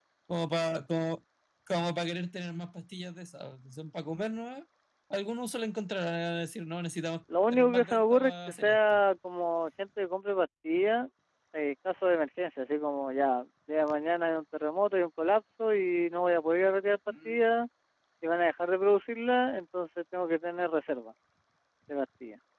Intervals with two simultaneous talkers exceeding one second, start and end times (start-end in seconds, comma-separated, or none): 7.5-8.8